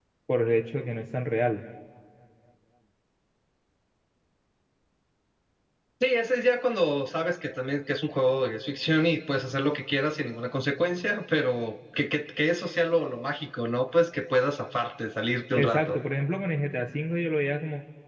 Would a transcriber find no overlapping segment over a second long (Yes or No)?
Yes